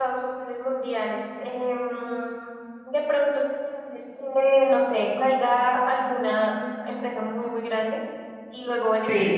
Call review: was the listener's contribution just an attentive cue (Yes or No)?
Yes